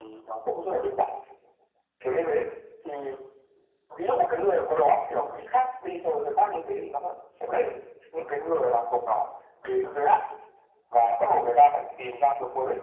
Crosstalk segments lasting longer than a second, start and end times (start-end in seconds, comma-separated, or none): none